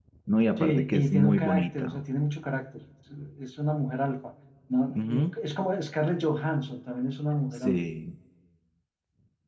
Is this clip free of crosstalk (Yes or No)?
No